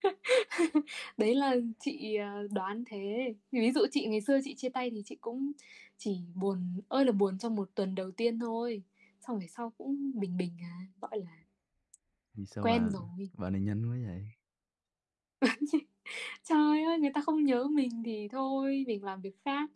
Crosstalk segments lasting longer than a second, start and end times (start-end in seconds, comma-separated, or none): none